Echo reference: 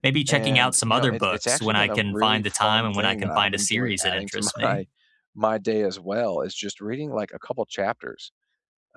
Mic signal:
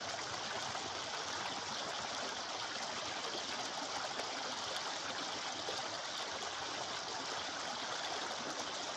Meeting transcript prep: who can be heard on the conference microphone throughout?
neither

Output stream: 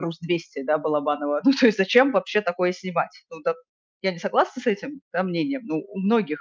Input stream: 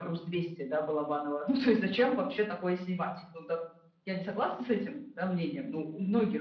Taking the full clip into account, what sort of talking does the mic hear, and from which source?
echo only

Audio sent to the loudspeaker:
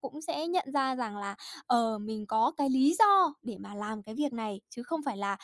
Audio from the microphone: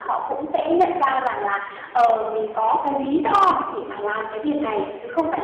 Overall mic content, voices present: echo only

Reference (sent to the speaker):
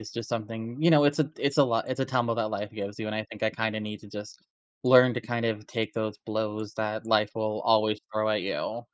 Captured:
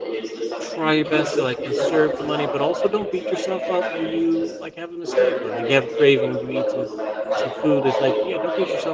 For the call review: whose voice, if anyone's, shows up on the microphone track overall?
both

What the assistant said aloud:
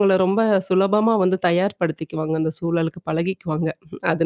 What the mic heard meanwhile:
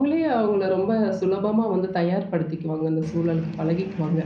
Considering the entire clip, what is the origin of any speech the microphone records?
echo only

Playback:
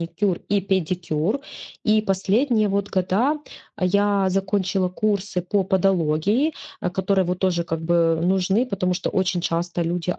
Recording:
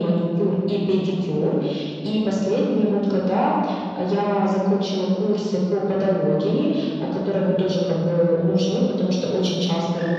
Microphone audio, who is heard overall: echo only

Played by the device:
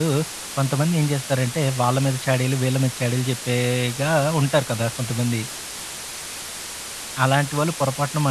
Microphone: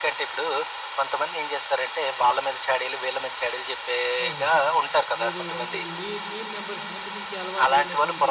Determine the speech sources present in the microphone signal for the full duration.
both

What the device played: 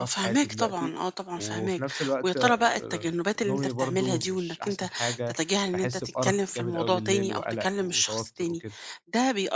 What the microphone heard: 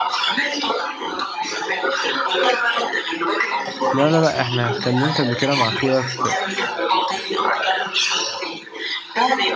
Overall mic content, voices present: both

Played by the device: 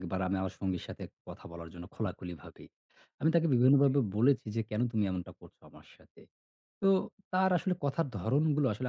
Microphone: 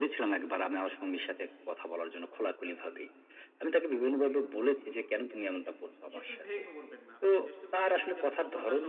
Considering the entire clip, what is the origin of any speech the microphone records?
both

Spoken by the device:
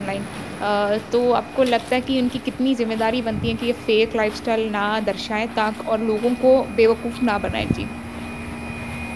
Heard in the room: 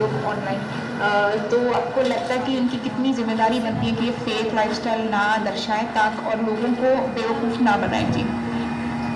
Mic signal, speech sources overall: both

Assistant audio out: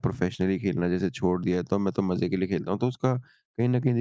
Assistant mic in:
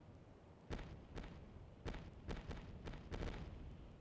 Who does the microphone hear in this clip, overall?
neither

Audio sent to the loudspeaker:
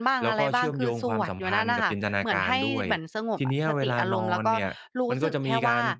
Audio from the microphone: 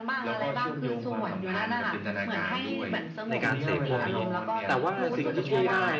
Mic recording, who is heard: both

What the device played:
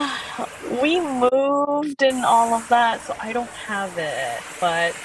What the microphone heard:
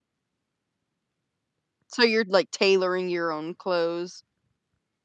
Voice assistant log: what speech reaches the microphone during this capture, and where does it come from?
user only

